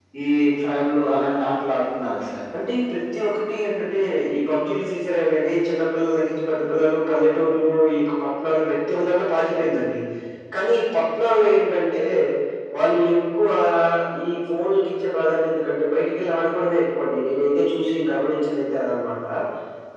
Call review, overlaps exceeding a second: none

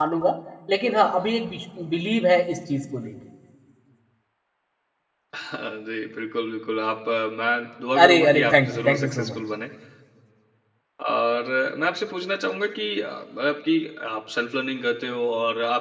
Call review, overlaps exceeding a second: present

